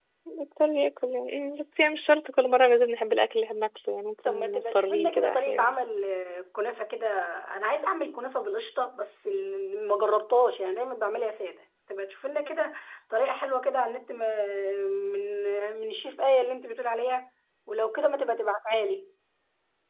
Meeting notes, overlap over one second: present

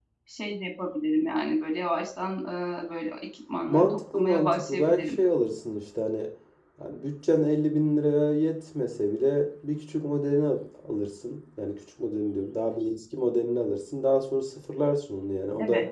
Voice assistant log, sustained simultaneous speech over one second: present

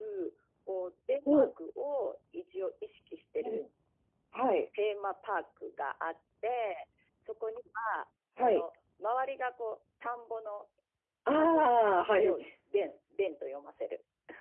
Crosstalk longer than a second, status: none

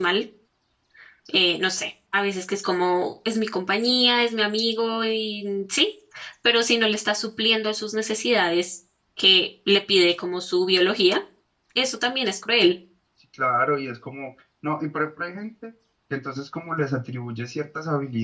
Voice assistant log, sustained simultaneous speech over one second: none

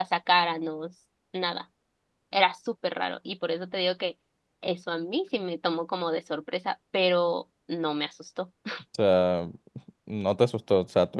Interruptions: none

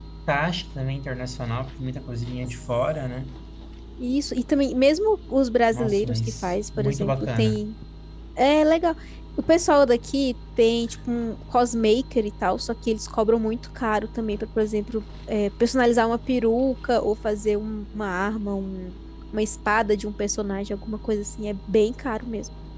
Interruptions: present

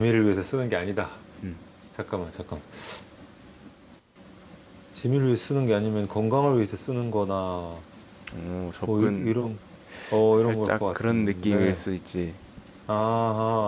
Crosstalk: present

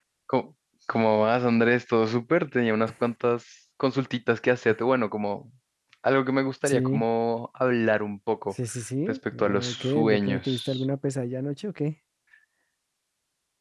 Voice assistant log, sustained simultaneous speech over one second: present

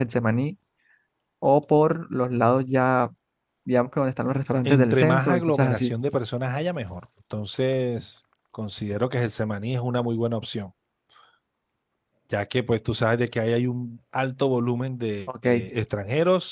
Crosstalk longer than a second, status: present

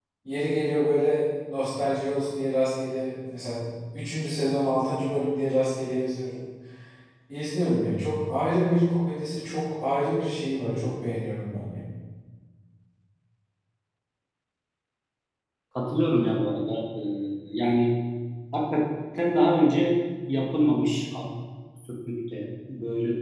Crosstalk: none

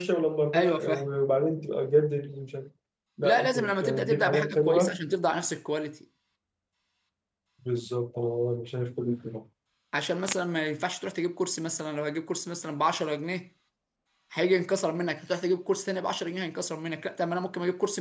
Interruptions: present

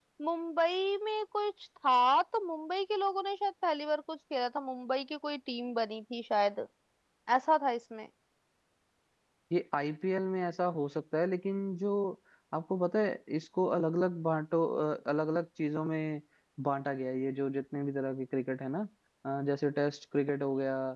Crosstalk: none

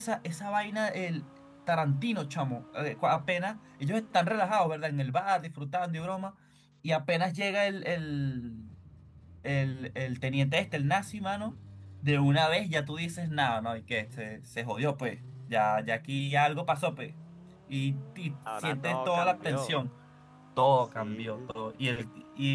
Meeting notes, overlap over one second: present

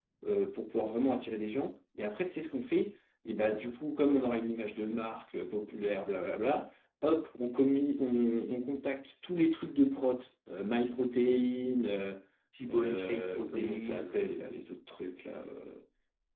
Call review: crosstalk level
present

